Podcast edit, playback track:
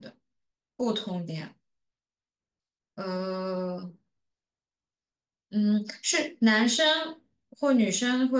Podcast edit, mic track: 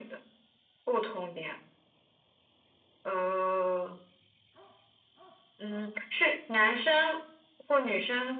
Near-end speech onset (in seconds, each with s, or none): none